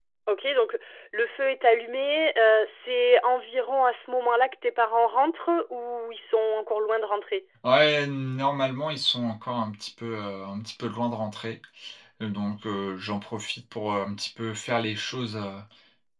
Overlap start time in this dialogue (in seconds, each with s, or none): none